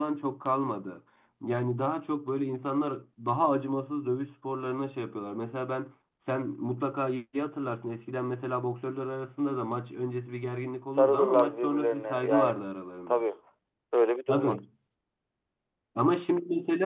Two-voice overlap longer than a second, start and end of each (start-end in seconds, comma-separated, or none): 11.0-12.6